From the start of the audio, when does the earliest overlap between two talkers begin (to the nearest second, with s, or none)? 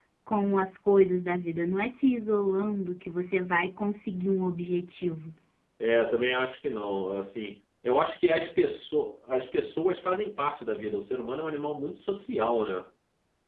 none